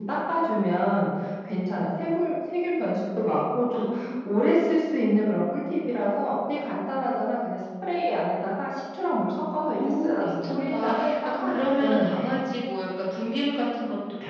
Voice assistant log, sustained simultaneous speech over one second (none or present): present